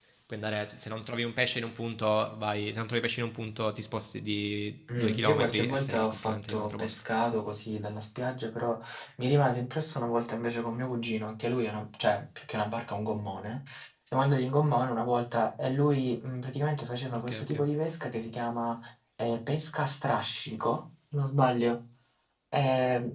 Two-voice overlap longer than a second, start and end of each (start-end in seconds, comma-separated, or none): 5.0-7.0